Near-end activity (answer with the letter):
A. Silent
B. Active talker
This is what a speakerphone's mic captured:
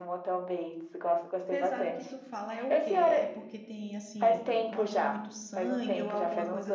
B